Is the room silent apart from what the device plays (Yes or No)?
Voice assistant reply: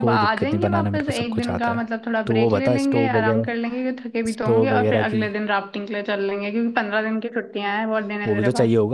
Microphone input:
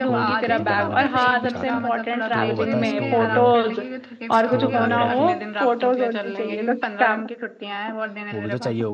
No